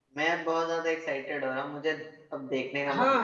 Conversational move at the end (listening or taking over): taking over